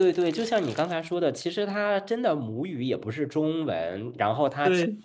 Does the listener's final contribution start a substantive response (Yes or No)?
No